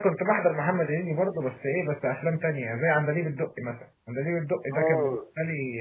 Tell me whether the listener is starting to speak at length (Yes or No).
No